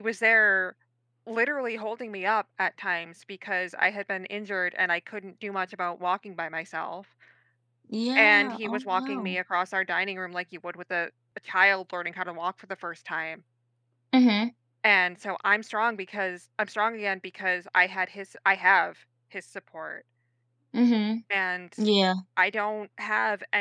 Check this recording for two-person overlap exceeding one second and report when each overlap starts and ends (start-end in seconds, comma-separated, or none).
8.2-9.4